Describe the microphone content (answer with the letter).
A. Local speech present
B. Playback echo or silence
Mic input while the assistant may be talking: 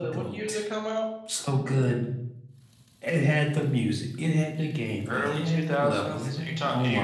B